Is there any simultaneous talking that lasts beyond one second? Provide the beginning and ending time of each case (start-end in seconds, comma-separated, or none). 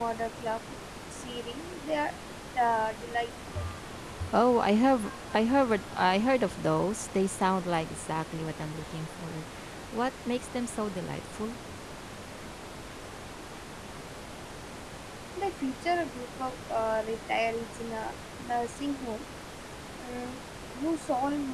none